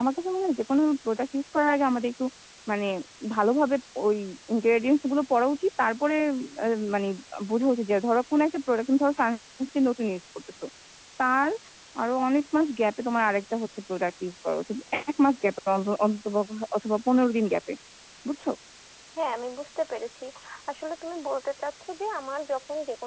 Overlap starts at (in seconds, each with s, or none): none